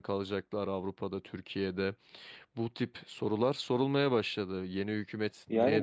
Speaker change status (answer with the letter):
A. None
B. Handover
B